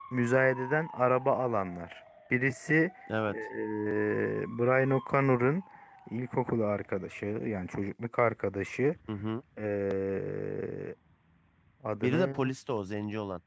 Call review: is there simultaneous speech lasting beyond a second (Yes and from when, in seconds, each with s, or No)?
No